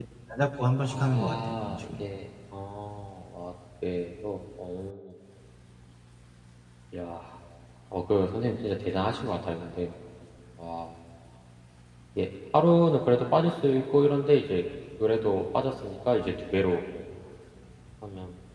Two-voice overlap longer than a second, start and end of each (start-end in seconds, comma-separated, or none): 0.8-2.1